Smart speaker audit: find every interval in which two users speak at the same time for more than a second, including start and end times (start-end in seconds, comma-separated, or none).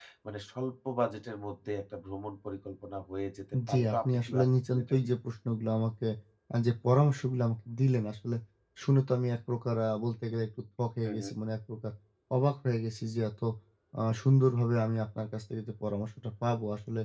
3.7-5.1